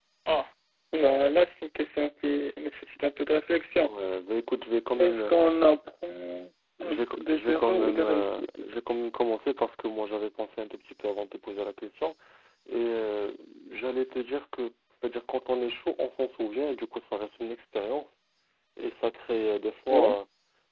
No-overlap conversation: No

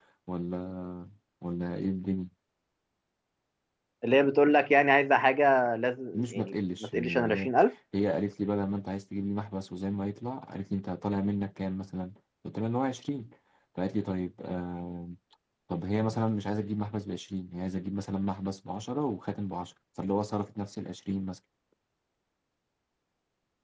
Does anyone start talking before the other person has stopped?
Yes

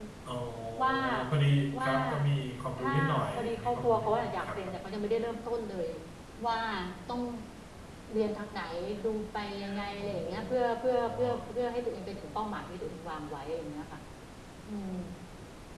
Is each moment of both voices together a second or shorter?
No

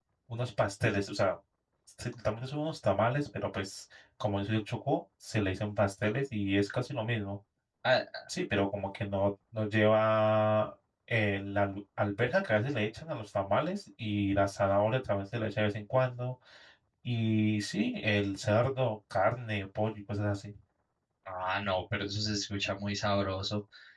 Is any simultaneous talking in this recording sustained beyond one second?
No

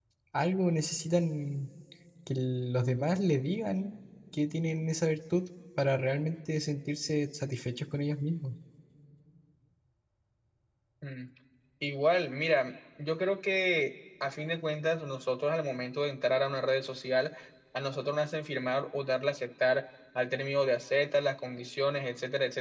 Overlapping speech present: No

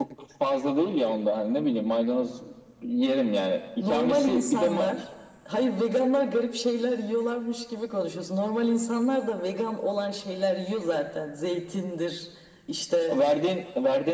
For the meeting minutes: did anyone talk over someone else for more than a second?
Yes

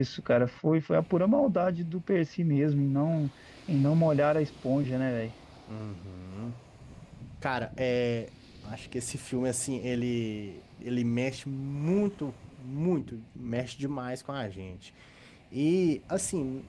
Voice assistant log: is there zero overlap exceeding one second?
Yes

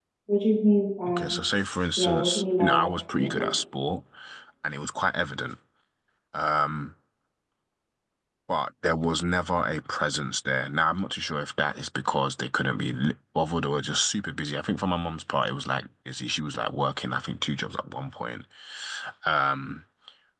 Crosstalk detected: Yes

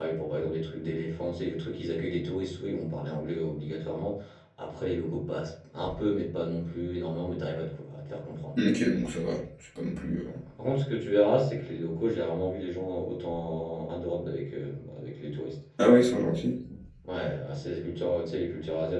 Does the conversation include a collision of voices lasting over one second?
No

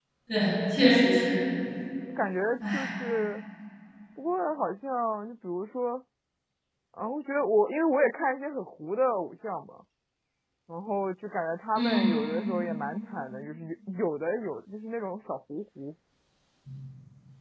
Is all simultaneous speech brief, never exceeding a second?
Yes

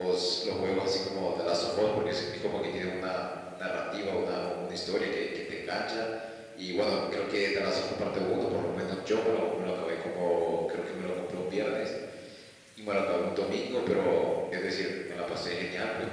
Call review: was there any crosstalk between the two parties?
No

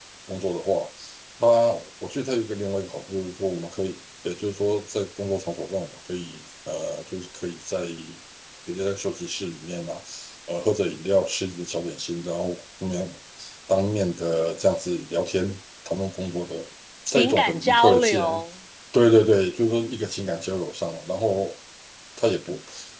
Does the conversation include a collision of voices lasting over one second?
Yes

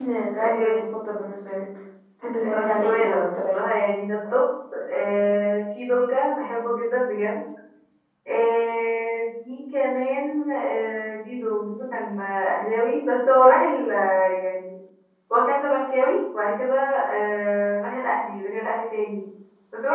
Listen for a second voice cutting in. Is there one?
Yes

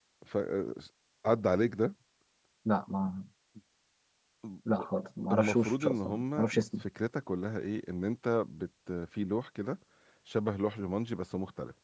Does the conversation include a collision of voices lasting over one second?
Yes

